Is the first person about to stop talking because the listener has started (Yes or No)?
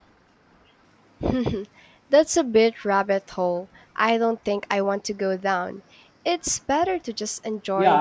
Yes